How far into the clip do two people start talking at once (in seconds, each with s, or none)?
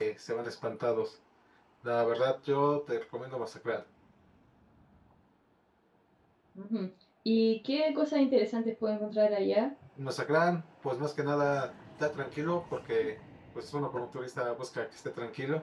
none